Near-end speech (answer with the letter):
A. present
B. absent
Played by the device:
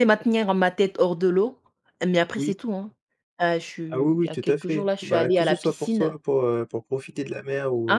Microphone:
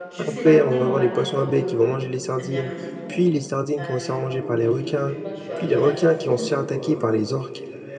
A